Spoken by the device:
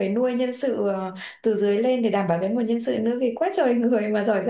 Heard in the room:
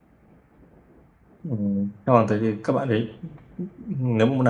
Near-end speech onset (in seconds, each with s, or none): 1.5 s